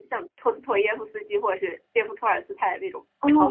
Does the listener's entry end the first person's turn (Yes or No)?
Yes